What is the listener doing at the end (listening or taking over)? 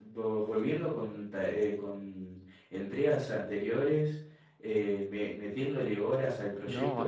taking over